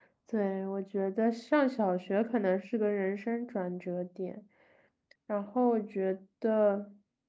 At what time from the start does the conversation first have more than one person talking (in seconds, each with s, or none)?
none